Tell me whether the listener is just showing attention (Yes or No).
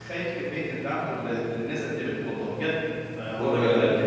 Yes